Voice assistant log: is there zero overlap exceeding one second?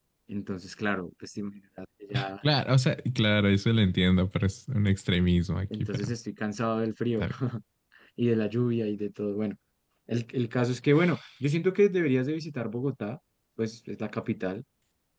Yes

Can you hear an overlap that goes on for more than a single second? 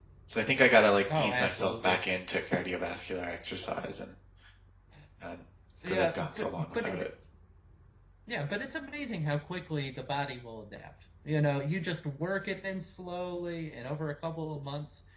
Yes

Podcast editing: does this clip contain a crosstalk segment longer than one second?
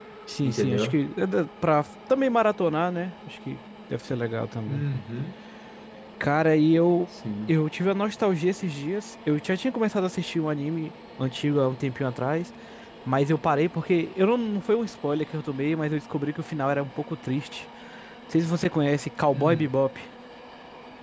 No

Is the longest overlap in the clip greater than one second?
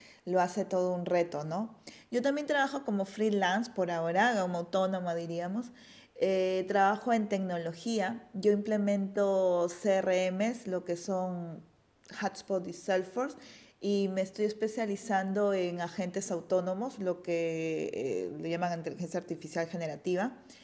No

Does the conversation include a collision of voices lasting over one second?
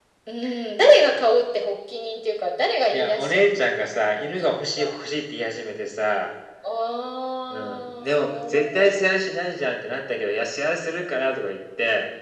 Yes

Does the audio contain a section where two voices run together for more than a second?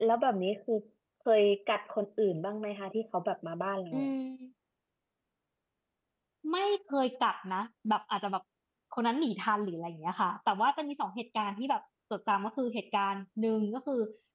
No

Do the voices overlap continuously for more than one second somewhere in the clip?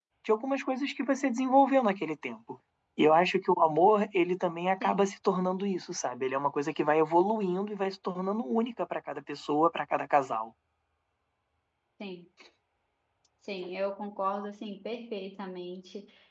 No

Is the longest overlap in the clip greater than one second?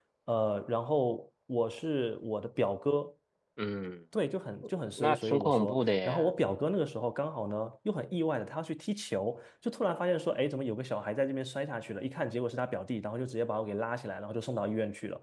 Yes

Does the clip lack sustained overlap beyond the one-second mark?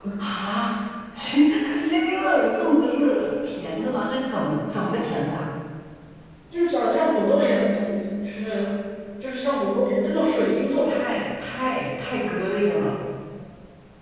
Yes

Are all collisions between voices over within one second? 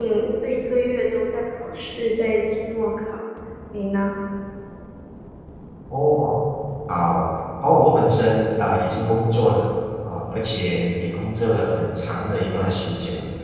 Yes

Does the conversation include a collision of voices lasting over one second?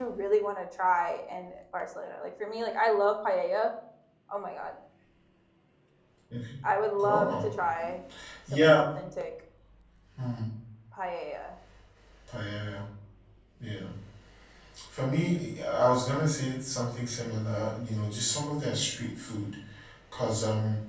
No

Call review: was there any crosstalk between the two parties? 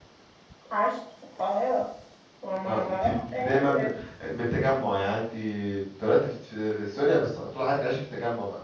Yes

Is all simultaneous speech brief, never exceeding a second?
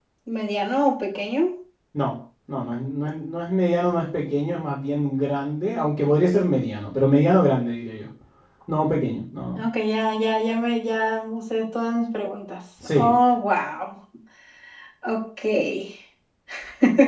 Yes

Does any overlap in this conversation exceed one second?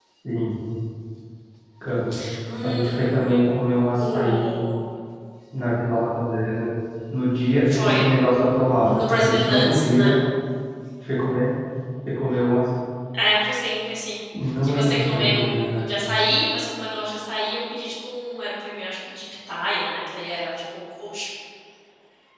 Yes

